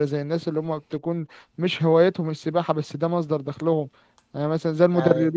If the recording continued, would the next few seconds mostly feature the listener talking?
No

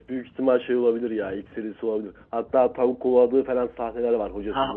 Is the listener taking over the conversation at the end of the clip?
Yes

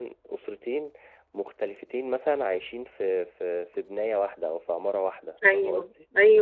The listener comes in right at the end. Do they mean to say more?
Yes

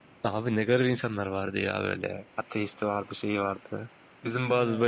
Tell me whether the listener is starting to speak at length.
No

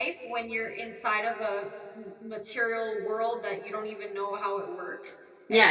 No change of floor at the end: No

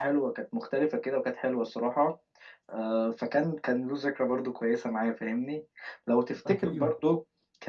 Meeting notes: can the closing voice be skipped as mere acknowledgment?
Yes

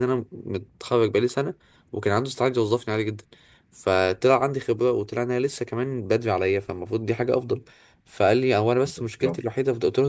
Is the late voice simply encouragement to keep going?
Yes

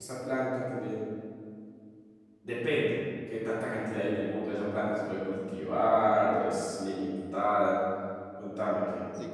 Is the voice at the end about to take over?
Yes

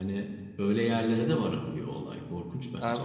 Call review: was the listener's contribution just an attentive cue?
No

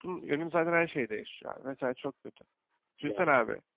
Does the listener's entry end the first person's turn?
No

